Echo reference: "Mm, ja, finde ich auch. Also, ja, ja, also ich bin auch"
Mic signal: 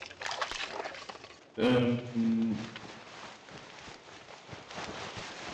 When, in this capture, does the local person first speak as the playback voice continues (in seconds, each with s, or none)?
1.6 s